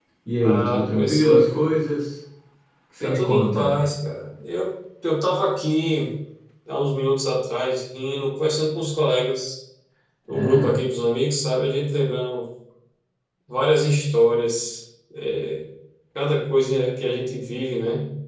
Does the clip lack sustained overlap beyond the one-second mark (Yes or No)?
No